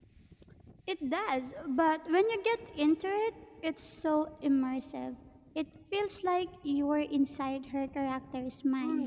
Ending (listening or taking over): taking over